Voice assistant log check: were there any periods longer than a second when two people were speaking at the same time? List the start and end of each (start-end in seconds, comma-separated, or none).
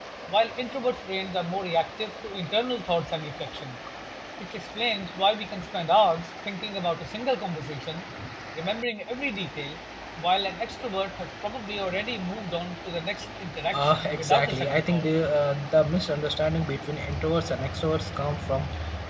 13.7-15.1